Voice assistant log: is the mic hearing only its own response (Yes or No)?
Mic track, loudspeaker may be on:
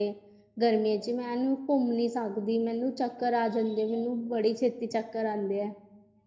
No